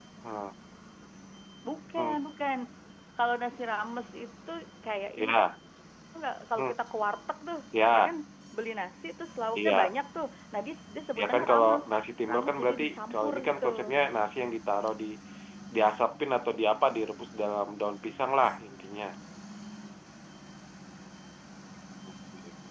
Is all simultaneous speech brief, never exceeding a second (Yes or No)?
No